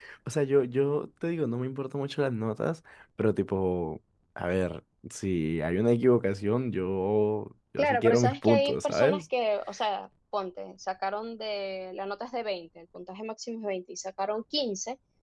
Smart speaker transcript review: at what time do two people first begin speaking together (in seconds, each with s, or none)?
7.8 s